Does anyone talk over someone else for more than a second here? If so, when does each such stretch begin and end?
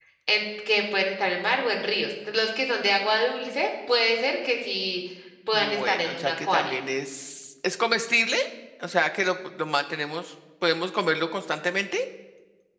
5.5-6.7

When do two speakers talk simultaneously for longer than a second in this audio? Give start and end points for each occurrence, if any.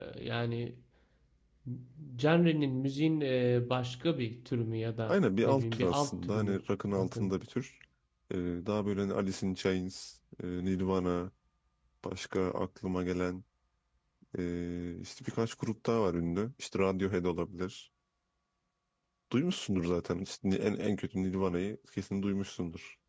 5.1-6.6

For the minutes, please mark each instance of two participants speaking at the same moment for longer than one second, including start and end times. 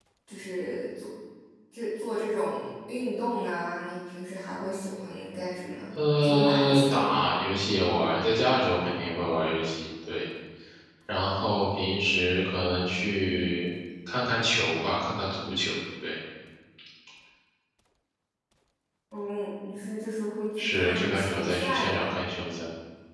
6.0-7.2, 20.6-22.1

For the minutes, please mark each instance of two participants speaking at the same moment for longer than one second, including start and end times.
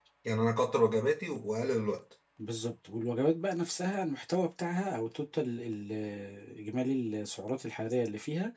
none

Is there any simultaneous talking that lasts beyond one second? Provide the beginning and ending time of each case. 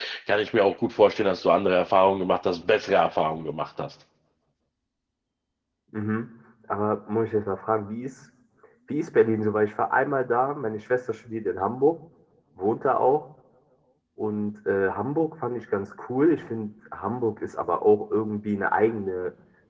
none

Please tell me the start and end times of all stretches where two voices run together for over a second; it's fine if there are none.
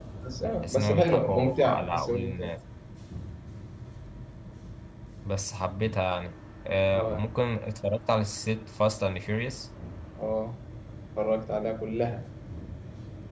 0.6-2.5

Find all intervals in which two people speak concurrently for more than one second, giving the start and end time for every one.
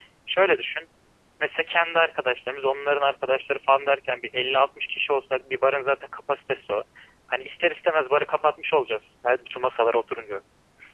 none

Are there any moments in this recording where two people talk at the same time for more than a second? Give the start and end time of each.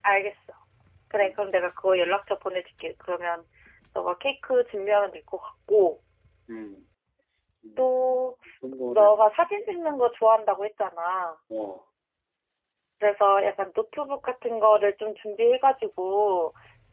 none

